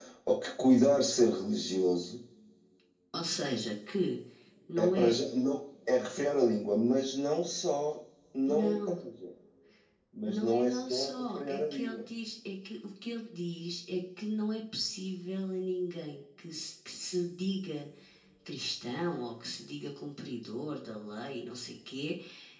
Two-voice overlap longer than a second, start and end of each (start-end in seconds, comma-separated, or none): 10.2-12.0